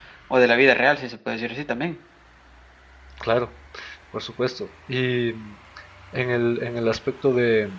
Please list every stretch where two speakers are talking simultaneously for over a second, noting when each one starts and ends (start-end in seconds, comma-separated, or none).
none